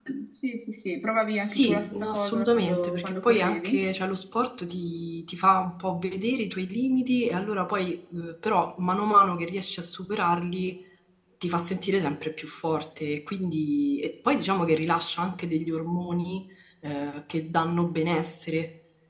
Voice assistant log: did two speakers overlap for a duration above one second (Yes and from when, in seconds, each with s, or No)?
Yes, from 1.4 s